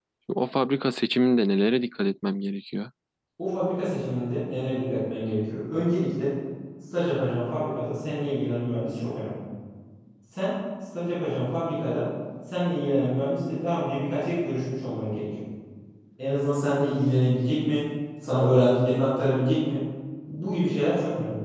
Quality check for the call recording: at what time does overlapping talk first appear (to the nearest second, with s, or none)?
none